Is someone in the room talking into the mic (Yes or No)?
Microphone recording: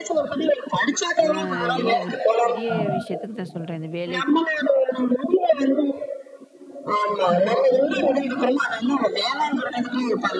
Yes